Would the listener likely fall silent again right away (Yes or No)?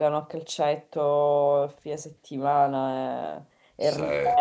Yes